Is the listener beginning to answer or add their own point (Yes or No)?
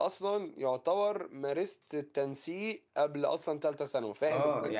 Yes